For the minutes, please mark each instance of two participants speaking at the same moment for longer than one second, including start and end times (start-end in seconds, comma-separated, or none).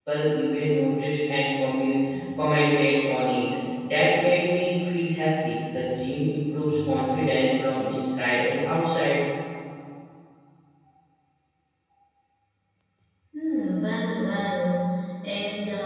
none